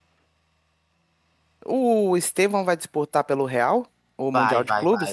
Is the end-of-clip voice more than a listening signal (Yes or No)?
Yes